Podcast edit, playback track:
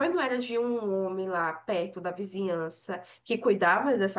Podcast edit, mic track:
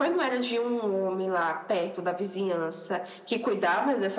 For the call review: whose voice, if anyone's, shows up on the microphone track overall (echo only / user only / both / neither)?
echo only